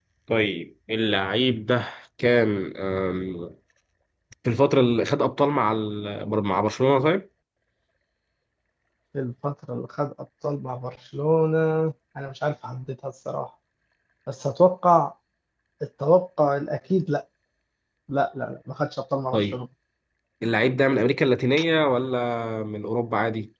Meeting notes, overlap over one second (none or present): none